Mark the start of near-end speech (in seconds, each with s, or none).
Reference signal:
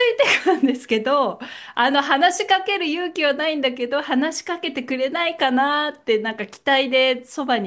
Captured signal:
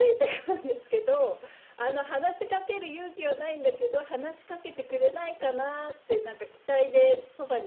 none